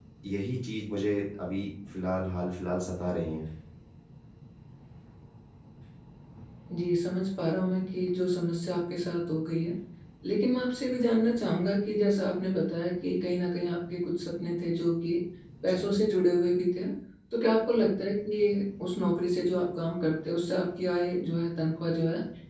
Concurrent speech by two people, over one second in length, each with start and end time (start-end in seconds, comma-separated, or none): none